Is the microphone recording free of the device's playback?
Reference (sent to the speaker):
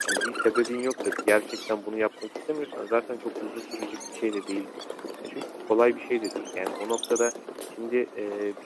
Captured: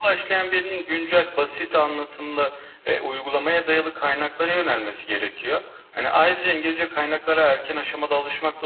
Yes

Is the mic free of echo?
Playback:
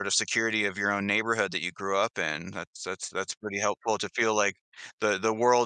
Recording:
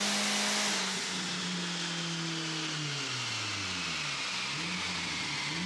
Yes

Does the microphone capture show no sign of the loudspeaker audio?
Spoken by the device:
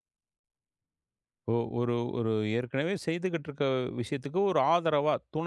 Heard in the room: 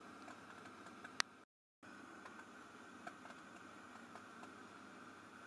Yes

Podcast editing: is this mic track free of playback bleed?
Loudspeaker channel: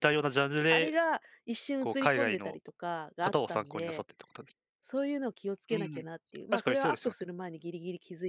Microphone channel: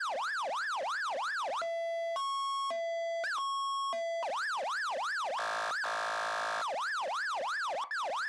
Yes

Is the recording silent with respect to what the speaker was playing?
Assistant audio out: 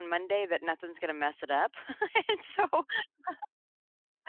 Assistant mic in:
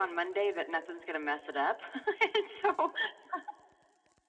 No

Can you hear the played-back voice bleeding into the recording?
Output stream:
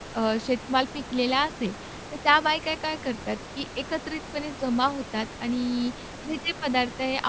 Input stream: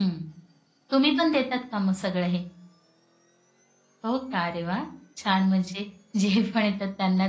No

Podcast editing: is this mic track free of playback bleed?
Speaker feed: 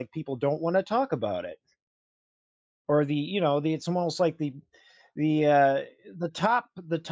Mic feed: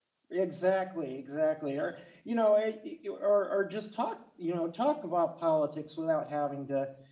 Yes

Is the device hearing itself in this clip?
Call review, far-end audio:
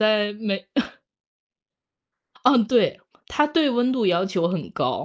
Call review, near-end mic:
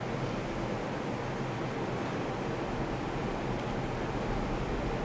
No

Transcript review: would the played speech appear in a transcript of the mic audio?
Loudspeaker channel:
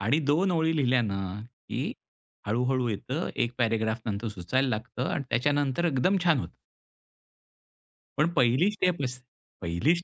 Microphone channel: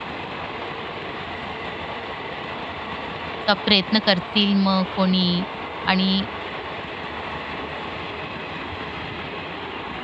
No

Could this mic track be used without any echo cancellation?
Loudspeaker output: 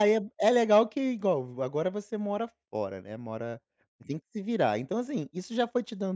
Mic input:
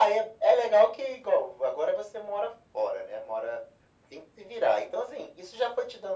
No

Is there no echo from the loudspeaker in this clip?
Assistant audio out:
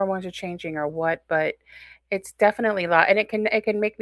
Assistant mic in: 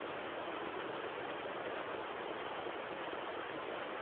Yes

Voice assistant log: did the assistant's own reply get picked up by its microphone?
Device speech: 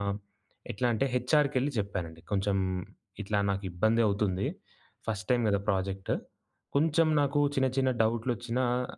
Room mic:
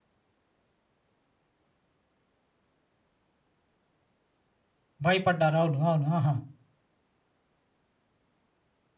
No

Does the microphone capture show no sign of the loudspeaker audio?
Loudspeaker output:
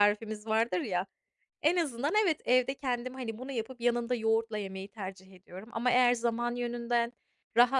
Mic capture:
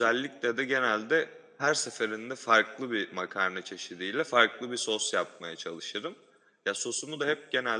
Yes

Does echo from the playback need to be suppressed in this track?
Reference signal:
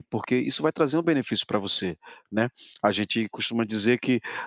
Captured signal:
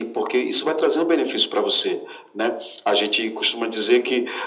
Yes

